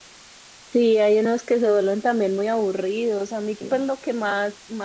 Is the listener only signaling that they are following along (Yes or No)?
Yes